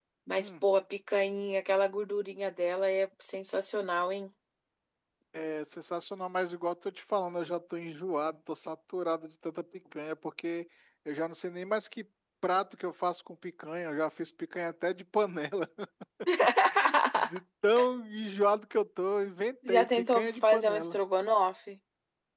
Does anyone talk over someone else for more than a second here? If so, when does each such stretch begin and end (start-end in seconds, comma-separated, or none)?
19.7-21.0